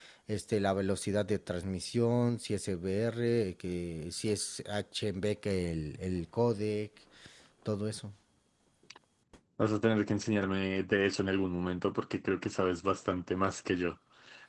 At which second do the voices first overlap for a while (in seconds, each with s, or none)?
none